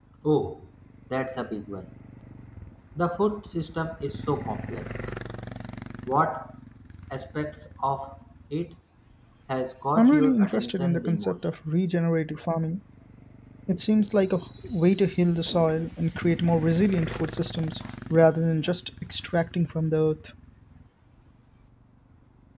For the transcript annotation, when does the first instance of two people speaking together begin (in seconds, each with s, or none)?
10.0 s